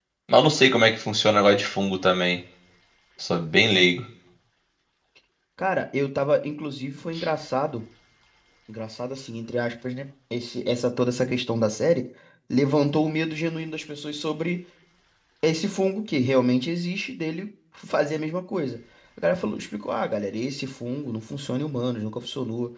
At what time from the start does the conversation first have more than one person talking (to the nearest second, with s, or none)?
none